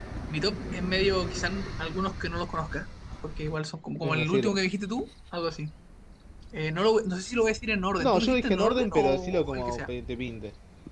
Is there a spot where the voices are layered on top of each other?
Yes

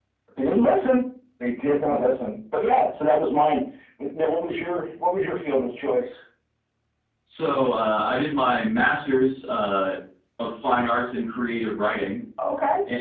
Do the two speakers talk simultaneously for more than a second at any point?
No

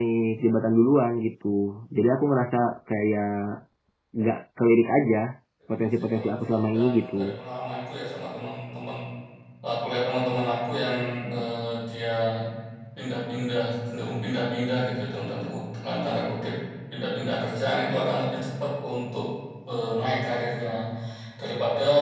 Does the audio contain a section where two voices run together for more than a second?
Yes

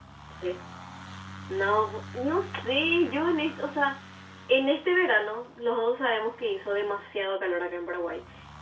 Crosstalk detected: No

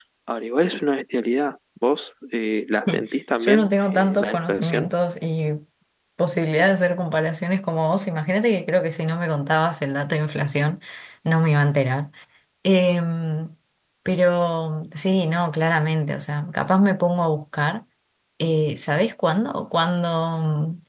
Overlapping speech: Yes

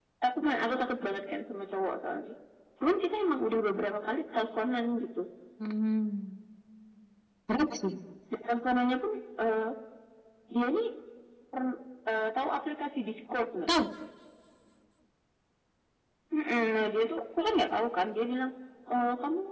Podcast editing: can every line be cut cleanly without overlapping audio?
Yes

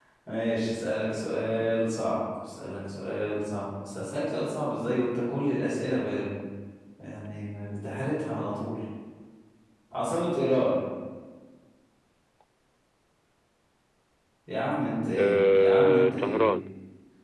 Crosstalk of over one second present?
Yes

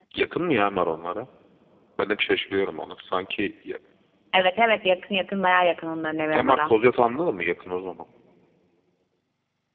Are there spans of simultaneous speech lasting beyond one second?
No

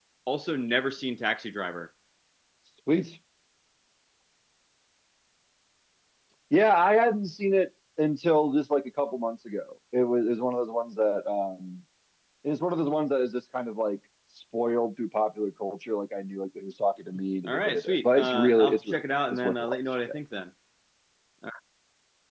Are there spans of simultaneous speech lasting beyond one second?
Yes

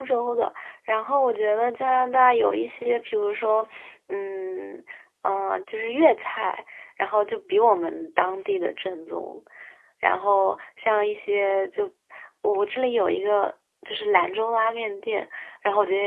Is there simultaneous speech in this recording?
No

